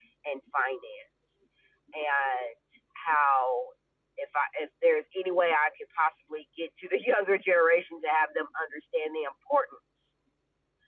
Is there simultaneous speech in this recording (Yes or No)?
No